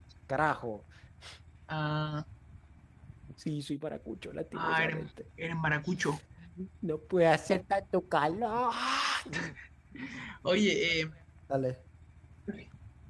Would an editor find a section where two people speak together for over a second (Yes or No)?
No